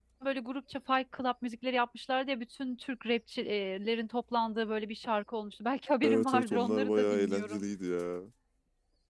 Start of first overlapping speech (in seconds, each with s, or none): 6.0 s